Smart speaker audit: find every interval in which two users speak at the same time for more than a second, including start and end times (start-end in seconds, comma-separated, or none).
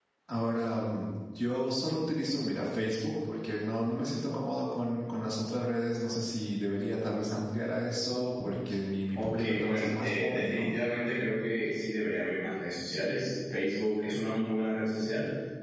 9.2-10.7